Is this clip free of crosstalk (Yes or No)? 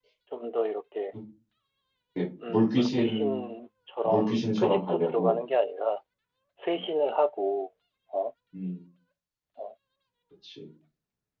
No